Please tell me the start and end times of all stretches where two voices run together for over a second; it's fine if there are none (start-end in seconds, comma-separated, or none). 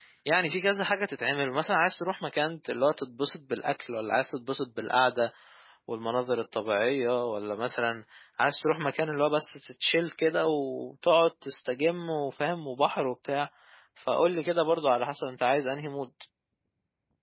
none